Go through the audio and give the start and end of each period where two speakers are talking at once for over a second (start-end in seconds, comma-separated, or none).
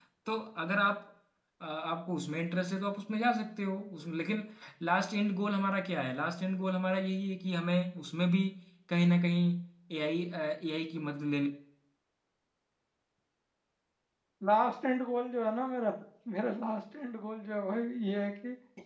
none